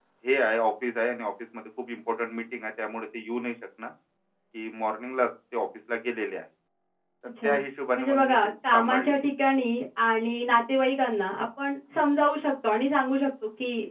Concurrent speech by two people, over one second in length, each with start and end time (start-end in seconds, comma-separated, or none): 8.0-9.2